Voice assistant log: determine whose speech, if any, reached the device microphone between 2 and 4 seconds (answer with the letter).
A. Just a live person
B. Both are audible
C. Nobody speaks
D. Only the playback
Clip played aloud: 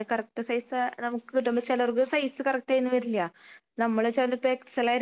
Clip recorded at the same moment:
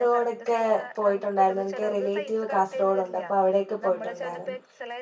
B